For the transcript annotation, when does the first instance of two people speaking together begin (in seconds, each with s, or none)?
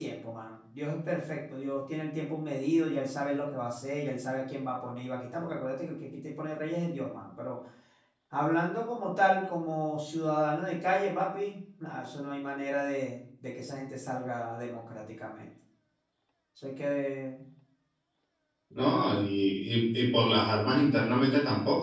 none